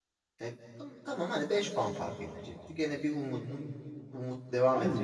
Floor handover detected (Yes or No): Yes